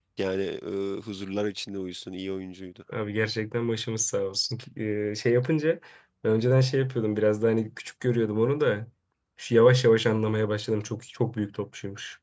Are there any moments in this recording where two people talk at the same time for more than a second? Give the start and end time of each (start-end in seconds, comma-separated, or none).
none